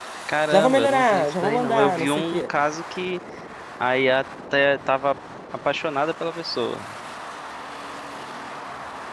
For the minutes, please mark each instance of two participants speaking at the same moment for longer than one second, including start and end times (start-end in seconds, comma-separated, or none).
0.5-2.4